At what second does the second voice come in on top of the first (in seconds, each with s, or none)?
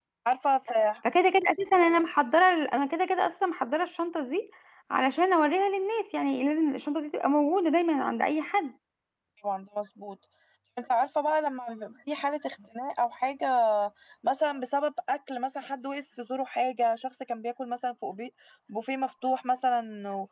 none